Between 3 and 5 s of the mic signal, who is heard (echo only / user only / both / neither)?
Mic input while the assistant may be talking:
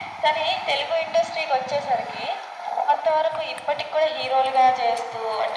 echo only